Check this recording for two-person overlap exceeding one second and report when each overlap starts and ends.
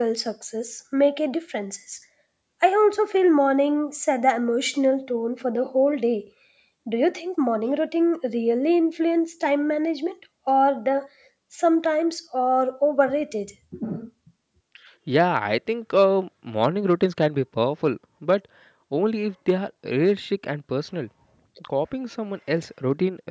none

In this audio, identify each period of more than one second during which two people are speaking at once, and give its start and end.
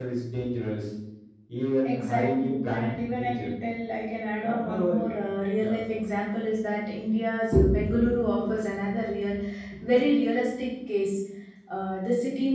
1.8-3.5

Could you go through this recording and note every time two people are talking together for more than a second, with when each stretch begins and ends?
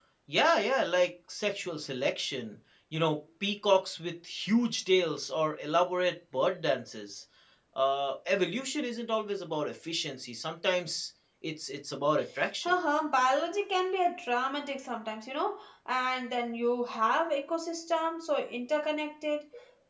none

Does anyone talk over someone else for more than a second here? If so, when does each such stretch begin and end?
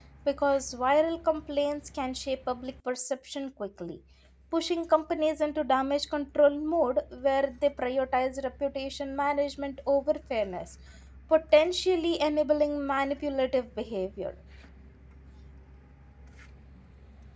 none

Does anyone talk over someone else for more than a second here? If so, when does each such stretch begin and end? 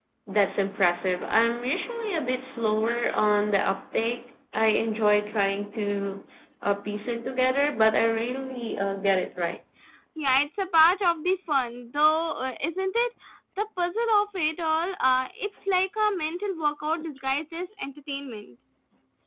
none

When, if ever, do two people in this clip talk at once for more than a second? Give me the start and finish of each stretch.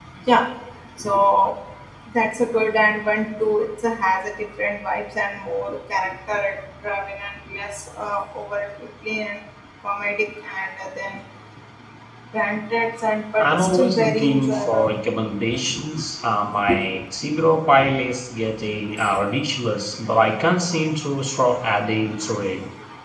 13.4-14.9

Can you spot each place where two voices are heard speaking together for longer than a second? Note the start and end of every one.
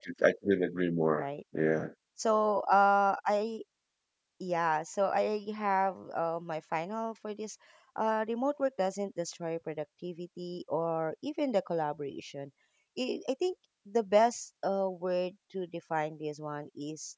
none

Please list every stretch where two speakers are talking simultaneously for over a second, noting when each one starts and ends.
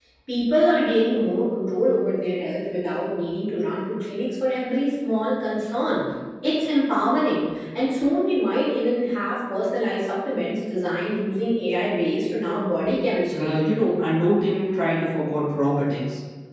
none

